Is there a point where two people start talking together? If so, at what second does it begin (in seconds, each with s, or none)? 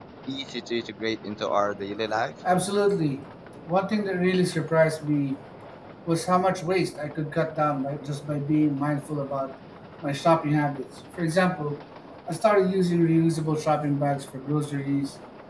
none